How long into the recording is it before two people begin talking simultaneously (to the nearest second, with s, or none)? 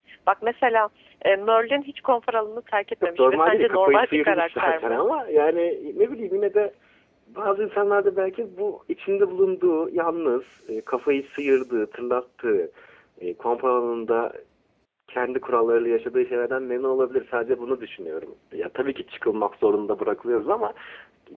3 s